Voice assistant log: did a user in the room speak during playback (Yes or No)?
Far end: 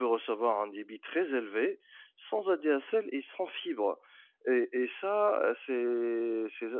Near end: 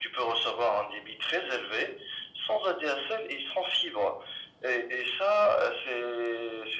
No